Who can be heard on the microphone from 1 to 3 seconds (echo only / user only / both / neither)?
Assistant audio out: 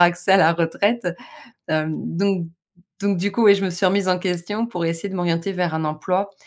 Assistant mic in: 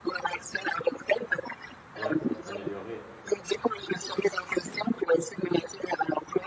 both